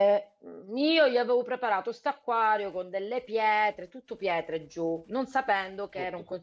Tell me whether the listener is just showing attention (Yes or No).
Yes